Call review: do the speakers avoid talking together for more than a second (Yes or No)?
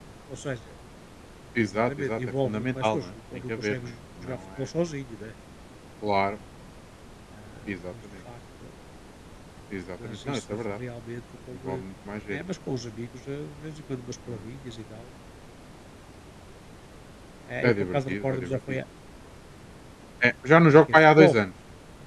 No